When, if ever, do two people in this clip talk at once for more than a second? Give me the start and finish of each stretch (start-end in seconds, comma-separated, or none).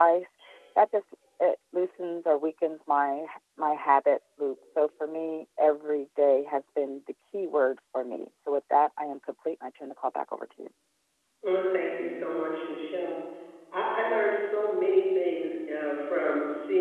none